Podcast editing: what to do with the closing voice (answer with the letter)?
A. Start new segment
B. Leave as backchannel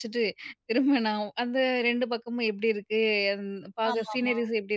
B